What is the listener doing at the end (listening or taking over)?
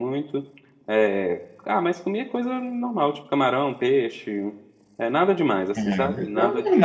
taking over